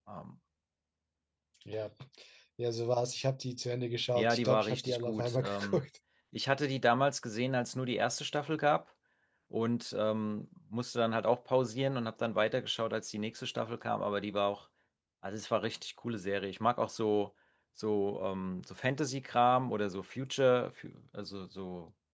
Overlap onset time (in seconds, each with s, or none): 4.2 s